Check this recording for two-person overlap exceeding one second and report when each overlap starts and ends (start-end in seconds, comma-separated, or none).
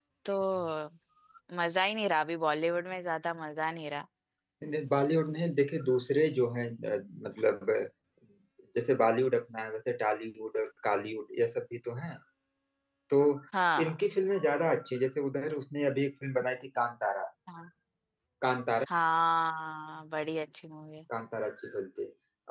none